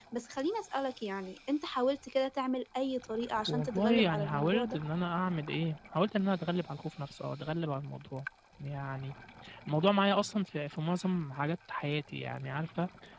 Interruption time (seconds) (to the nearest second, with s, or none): 3 s